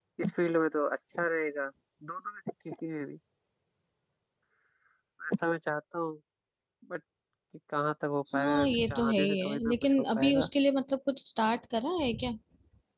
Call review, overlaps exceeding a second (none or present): present